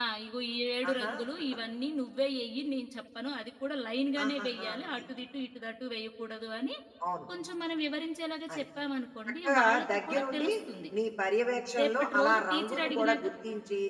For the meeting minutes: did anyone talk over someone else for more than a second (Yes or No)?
Yes